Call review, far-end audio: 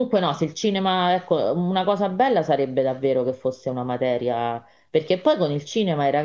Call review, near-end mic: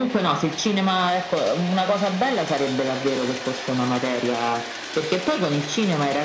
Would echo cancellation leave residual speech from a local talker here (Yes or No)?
No